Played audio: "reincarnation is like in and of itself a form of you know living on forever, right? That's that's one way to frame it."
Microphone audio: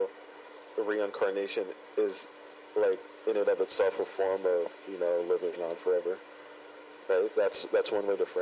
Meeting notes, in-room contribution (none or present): none